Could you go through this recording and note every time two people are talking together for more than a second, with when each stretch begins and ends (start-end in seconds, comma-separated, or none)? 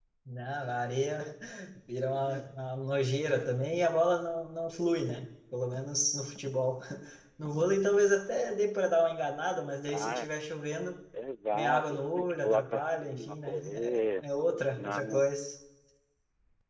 11.5-14.2